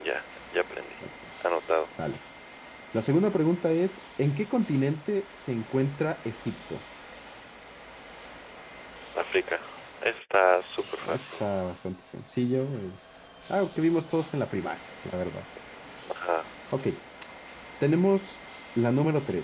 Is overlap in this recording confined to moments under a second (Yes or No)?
Yes